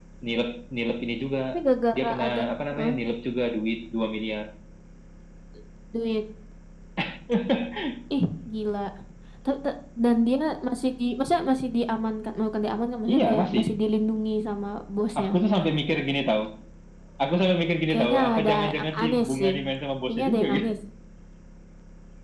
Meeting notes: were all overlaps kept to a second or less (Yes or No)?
No